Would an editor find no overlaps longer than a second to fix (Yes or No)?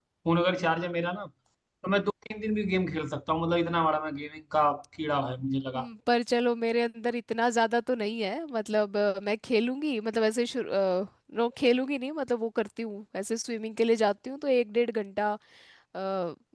Yes